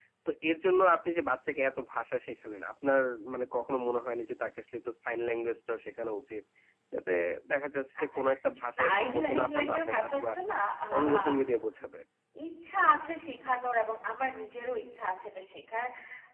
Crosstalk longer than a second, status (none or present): present